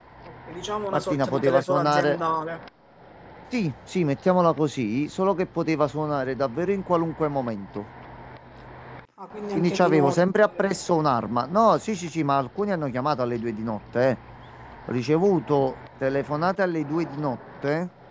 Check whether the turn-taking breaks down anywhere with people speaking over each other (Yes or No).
Yes